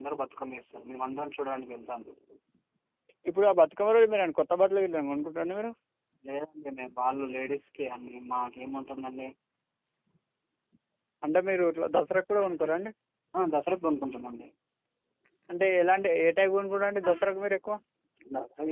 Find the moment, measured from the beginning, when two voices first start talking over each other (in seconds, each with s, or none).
none